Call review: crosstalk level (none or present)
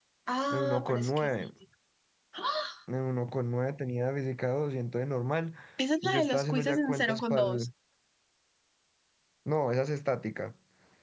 present